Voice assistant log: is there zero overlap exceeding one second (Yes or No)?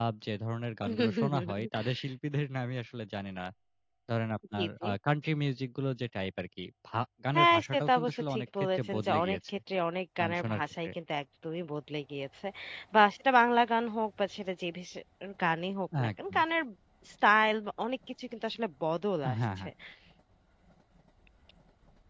No